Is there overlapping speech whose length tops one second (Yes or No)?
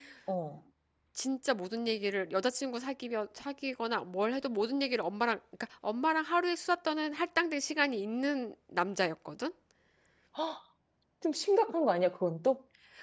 No